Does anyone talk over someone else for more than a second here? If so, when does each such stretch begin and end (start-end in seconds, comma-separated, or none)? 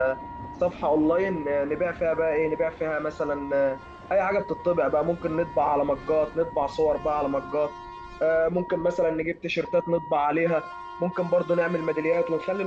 none